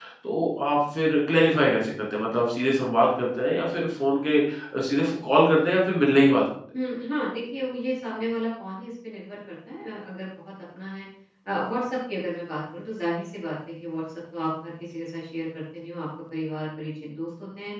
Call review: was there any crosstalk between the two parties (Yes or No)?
No